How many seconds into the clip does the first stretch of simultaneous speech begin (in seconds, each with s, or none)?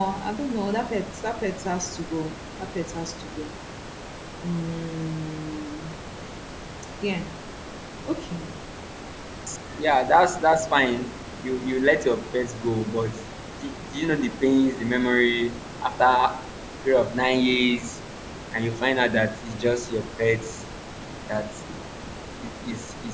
none